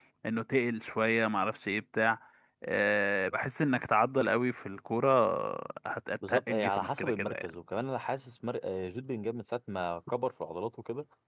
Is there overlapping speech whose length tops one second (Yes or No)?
Yes